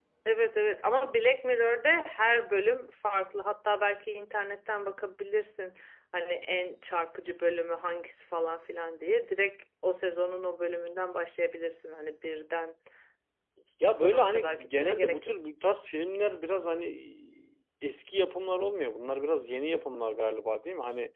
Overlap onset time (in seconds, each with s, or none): 14.0 s